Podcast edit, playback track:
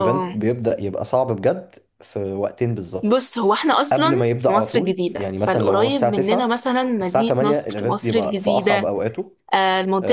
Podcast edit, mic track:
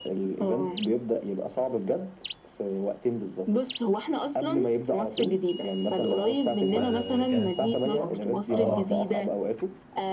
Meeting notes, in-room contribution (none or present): present